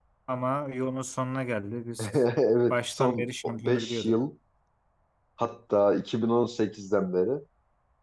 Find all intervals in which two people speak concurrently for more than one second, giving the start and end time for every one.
2.7-4.2

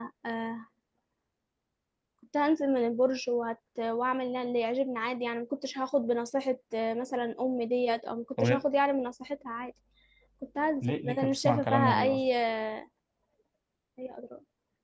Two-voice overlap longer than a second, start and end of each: 10.8-12.2

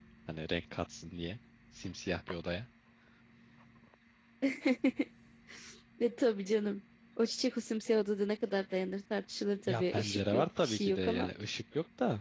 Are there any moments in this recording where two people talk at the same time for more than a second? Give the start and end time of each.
9.7-11.3

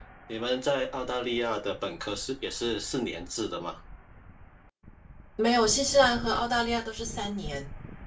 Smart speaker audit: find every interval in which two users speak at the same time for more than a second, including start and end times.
none

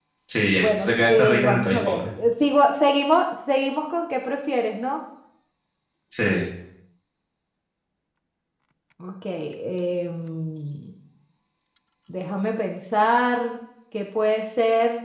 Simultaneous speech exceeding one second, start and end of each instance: 0.5-2.1

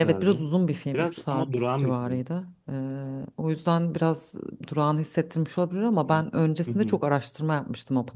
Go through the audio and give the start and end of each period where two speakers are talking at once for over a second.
0.9-2.2

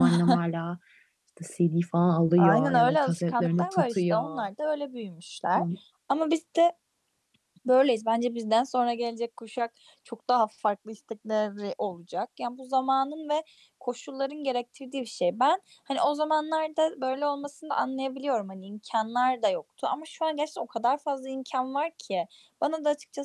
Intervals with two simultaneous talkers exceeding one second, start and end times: 2.4-4.5

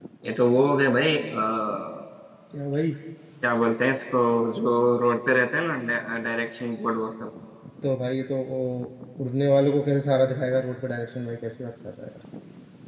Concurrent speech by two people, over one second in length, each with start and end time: none

